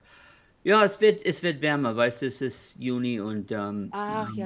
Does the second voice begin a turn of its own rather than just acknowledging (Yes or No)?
Yes